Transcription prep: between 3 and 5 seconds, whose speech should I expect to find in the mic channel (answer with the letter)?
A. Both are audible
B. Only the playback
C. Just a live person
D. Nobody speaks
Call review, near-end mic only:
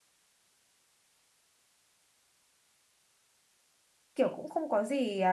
C